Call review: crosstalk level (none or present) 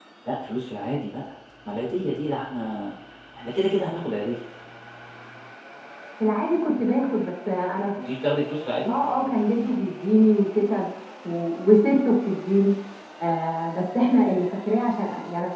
none